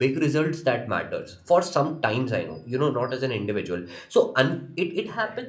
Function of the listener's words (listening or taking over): listening